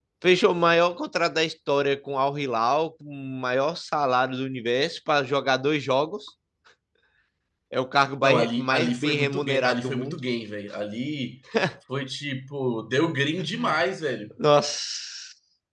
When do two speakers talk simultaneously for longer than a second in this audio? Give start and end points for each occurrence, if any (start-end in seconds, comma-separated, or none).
8.2-10.2